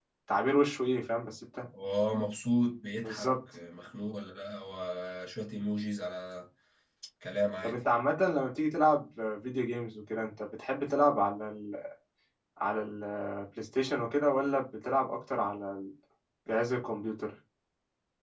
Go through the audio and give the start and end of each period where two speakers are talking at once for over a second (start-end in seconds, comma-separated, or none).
none